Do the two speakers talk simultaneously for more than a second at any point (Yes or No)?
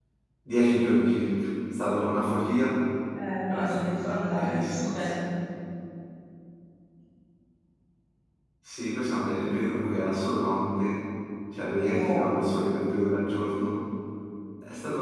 Yes